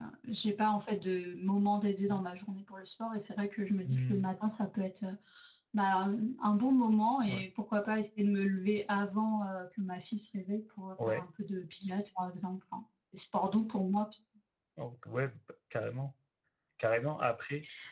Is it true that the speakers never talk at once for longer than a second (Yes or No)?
Yes